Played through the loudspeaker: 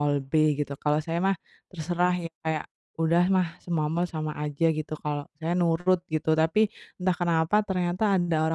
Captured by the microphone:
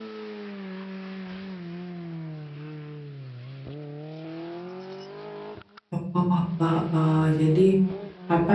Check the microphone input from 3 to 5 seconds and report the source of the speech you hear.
neither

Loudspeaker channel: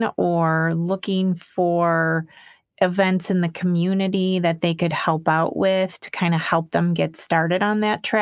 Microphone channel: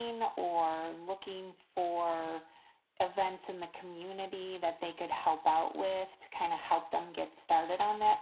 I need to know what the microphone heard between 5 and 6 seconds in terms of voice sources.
echo only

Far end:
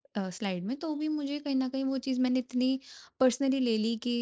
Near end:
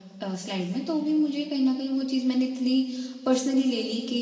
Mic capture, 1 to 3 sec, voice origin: echo only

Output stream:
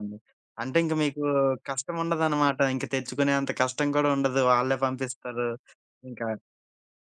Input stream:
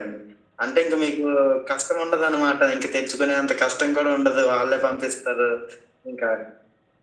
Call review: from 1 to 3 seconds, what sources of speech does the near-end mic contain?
echo only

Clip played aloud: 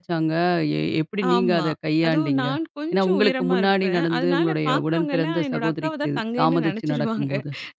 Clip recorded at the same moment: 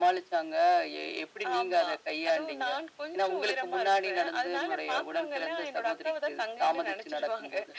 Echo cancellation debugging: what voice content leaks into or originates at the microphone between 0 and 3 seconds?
echo only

